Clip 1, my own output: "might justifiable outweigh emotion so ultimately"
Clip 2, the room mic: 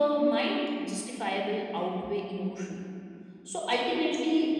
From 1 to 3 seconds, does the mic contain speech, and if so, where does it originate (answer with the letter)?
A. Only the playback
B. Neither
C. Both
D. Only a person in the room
A